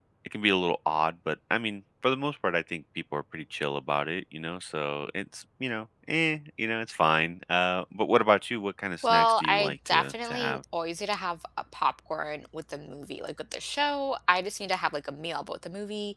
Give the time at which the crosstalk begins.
9.0 s

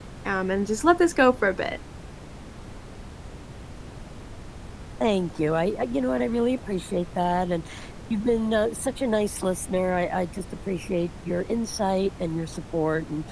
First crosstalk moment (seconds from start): none

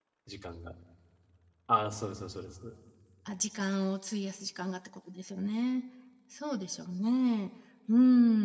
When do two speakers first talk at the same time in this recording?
none

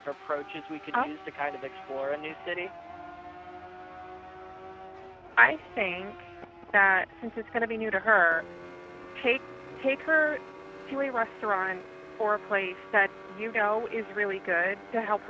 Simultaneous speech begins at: none

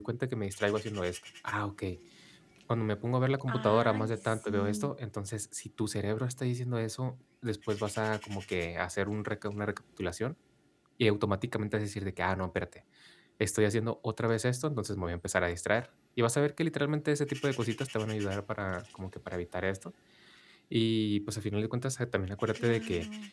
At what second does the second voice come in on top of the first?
3.5 s

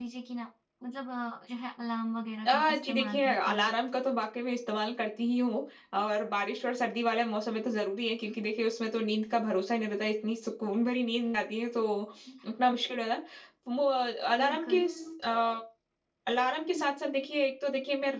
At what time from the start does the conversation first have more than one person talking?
2.4 s

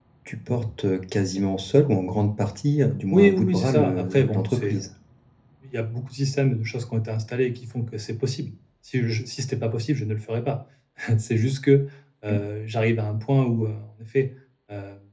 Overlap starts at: 3.1 s

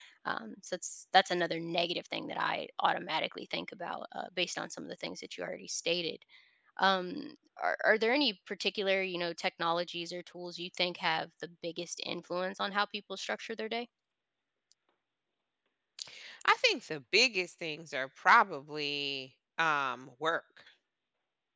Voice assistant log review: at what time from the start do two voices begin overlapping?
none

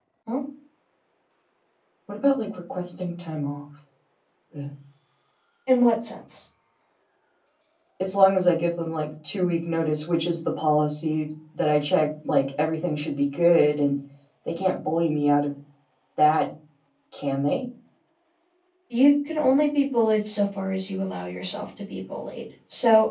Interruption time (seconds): none

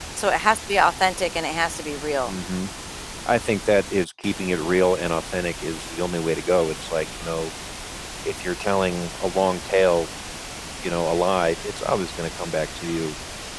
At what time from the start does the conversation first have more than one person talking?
none

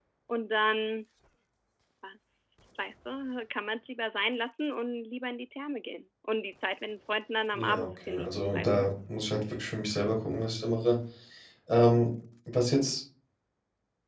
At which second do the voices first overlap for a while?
7.5 s

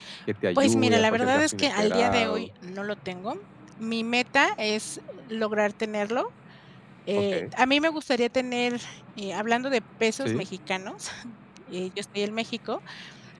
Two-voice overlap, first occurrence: 0.6 s

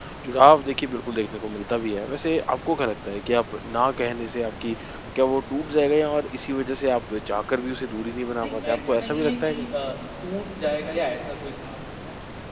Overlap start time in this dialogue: 8.4 s

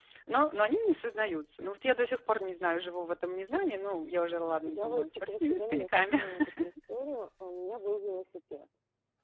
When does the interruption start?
4.4 s

